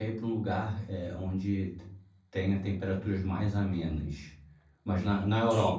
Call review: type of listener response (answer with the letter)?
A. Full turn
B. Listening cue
A